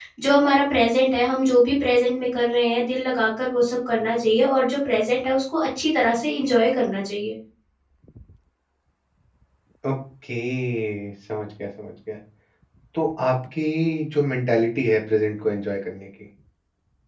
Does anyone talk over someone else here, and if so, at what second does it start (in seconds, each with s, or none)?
none